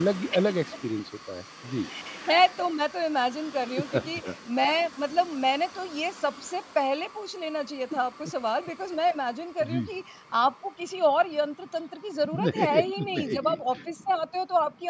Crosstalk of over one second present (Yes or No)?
Yes